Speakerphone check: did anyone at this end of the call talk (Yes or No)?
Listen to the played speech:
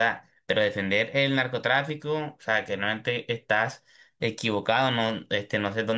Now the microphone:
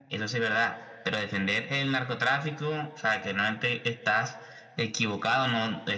No